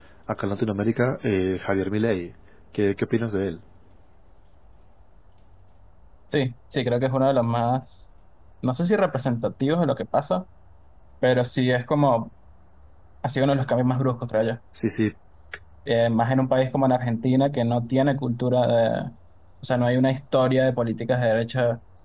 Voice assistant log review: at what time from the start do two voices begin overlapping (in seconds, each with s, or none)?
none